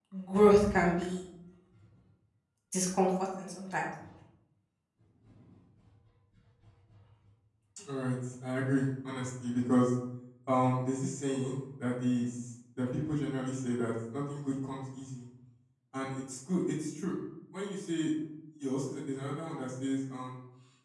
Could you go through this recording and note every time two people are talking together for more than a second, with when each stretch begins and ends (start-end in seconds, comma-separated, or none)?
none